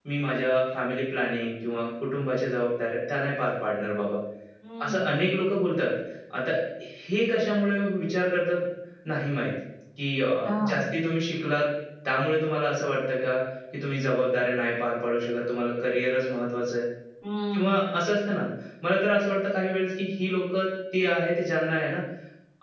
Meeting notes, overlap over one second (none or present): none